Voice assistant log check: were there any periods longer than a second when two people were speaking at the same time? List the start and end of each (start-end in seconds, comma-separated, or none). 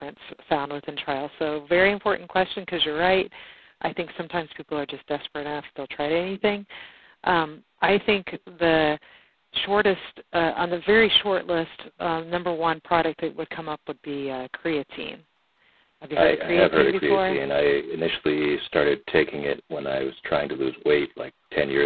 16.2-17.4